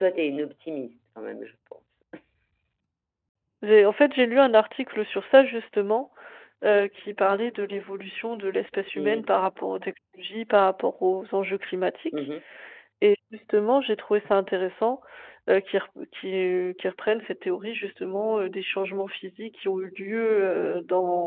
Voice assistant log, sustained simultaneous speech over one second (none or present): none